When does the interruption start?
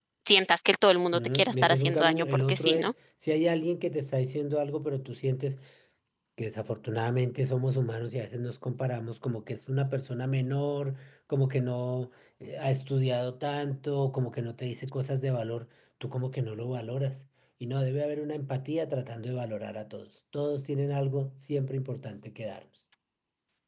1.1 s

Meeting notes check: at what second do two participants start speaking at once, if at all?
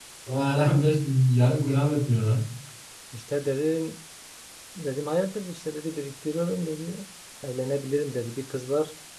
none

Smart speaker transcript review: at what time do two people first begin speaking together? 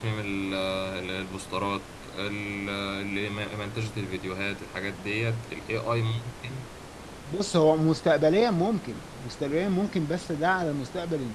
none

